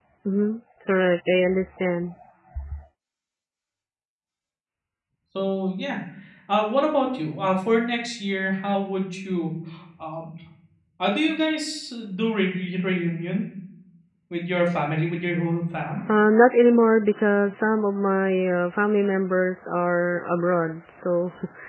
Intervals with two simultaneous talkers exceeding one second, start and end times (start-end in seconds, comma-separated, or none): none